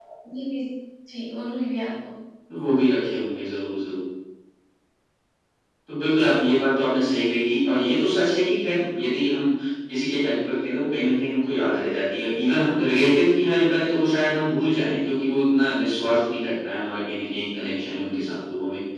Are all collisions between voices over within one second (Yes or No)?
Yes